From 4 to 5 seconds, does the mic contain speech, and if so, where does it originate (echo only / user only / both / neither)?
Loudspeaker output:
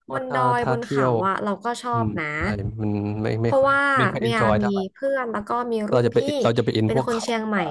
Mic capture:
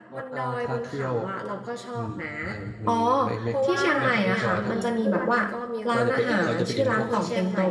both